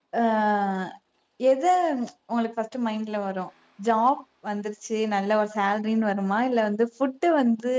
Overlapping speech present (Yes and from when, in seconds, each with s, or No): No